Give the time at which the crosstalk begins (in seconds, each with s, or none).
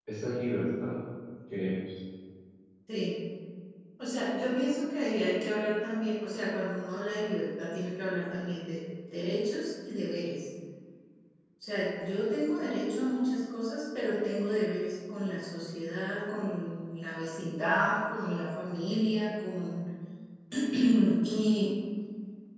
none